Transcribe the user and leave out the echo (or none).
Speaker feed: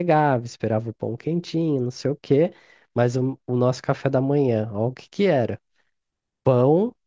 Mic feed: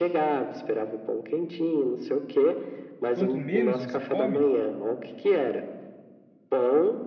quanto menos você come,